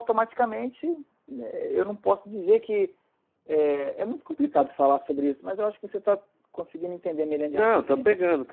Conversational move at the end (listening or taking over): taking over